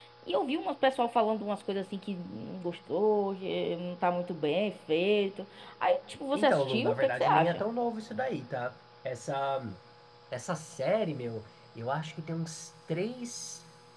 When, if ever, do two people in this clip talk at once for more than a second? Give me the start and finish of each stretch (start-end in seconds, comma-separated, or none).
6.3-7.6